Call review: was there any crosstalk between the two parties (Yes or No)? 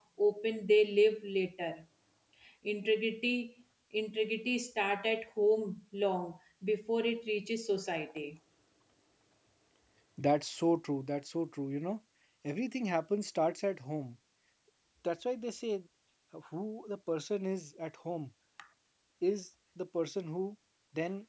No